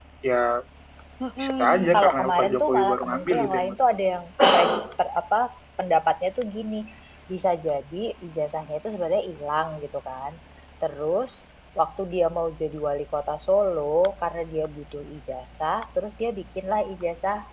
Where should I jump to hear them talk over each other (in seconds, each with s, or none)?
1.4 s